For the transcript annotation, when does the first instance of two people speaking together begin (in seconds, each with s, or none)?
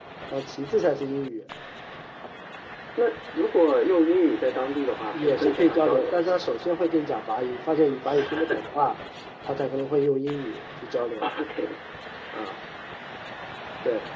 5.1 s